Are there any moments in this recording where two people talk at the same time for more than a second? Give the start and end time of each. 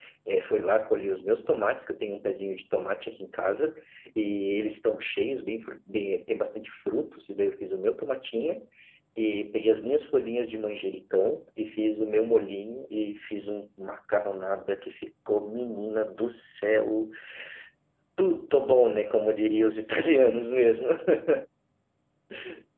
none

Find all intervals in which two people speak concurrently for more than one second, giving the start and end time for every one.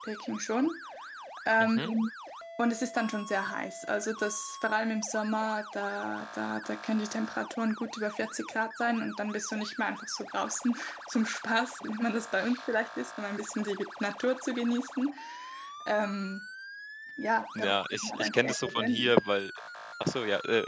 17.6-19.1

